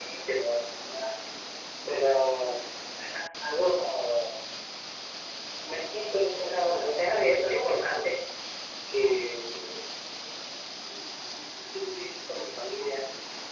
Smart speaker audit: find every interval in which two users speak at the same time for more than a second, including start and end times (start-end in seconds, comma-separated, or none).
6.5-7.9